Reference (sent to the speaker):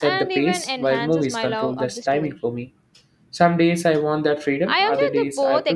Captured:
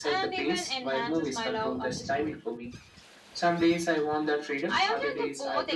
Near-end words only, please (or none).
none